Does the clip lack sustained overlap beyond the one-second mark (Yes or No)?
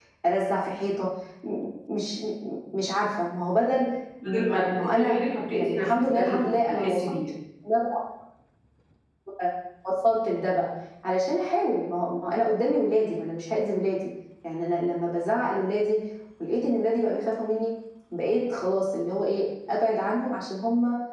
No